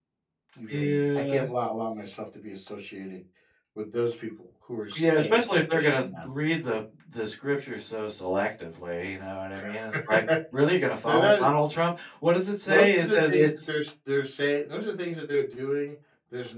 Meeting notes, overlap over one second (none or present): present